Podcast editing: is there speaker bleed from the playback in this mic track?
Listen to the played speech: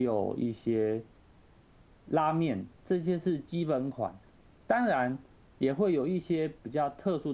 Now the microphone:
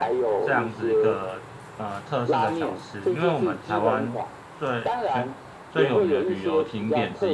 Yes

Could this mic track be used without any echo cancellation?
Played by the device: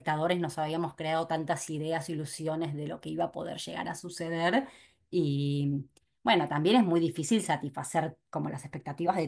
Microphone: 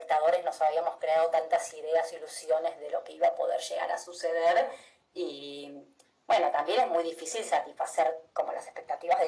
No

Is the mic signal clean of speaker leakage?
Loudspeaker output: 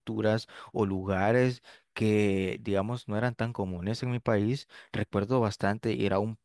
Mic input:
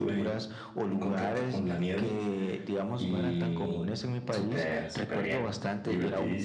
No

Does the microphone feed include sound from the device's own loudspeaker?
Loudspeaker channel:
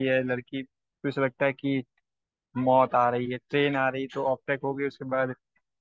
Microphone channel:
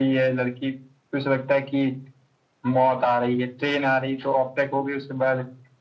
Yes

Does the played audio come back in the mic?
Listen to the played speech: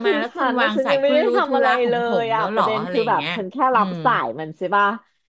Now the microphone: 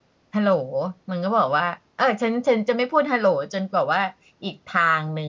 No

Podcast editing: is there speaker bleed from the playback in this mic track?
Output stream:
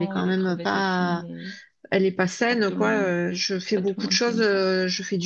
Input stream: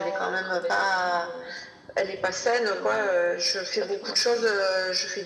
Yes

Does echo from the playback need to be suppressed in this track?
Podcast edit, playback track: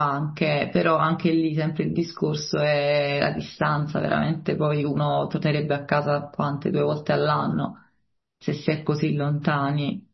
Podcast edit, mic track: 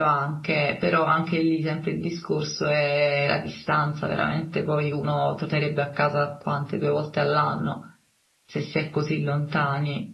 Yes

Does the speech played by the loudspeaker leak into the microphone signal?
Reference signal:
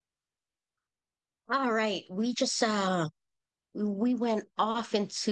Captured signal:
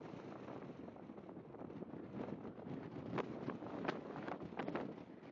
No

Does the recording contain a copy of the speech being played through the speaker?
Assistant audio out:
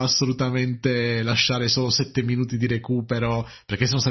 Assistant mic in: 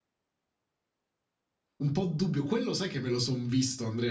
No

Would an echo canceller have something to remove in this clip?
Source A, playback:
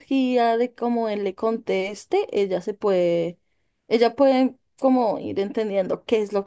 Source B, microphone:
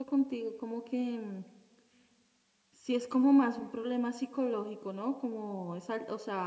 No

